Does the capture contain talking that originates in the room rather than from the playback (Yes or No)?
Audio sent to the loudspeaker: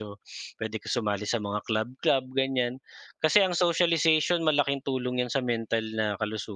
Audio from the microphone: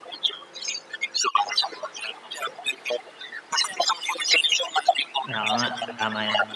Yes